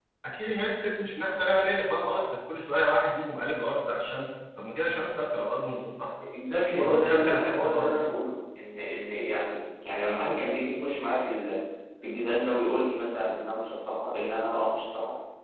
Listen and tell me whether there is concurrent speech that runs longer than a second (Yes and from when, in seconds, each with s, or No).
Yes, from 6.8 s